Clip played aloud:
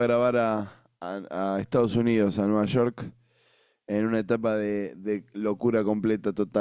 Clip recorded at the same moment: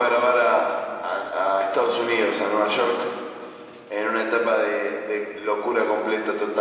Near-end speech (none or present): none